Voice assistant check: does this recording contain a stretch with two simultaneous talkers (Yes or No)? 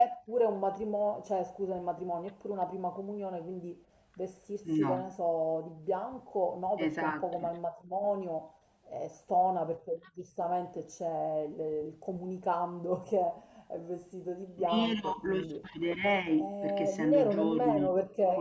Yes